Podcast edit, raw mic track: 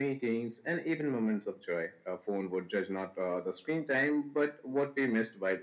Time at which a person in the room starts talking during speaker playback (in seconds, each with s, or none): none